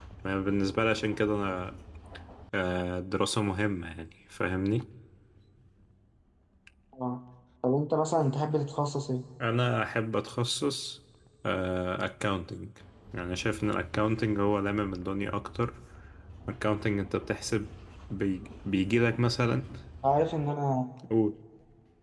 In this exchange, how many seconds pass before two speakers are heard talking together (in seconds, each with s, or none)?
none